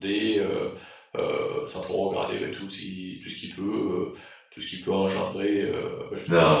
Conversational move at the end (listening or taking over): taking over